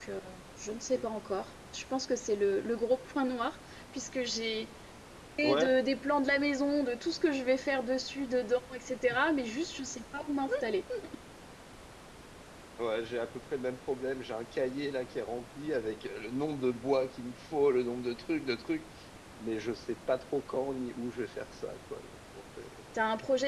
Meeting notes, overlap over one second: none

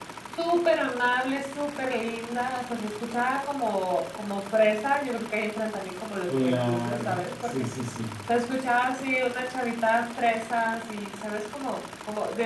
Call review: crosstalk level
present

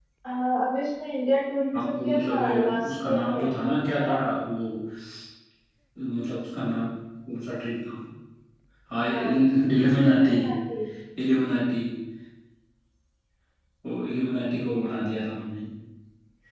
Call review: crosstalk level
present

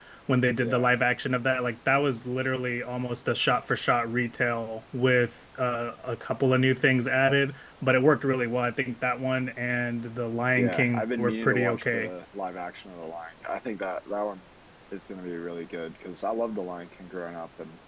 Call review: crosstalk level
present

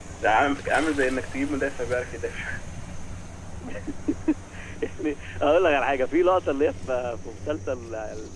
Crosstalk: none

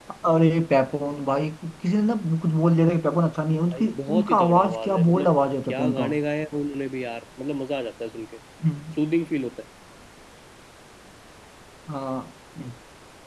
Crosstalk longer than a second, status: present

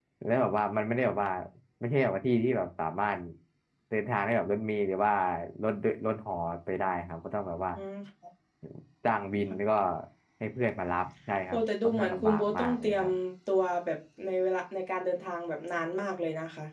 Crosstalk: present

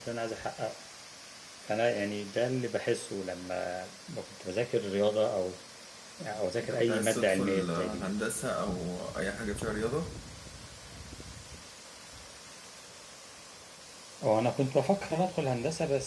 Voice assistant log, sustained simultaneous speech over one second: present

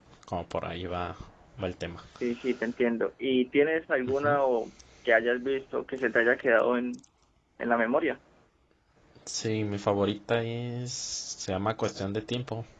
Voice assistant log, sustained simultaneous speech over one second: none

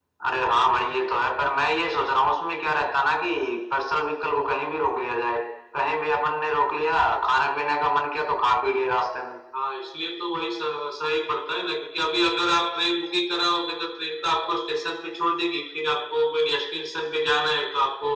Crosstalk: none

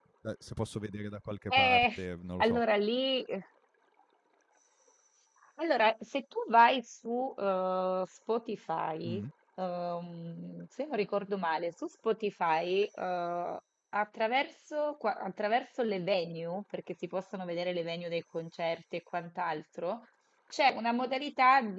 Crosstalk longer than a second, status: none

